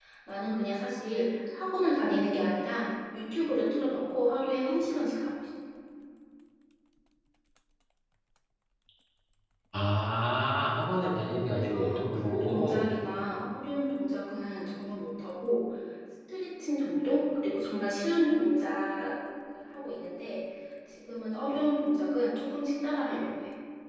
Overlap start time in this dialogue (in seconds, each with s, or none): 11.5 s